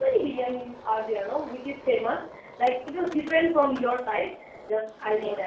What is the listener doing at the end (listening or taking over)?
listening